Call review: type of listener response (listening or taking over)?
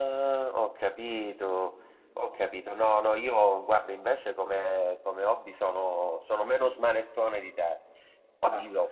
listening